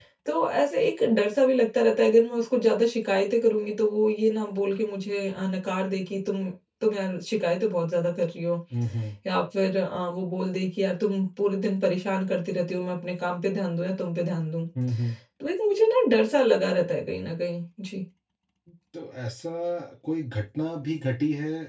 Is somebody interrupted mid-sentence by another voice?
No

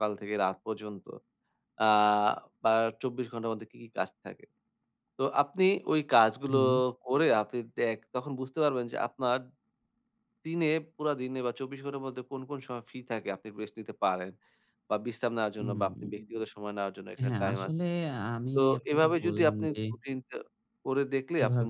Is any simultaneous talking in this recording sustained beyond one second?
Yes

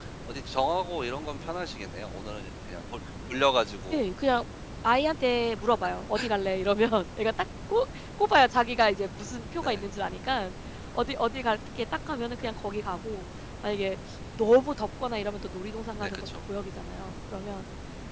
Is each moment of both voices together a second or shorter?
Yes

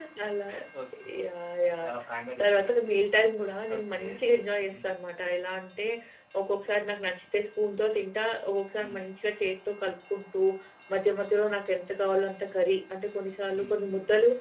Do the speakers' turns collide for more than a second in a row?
No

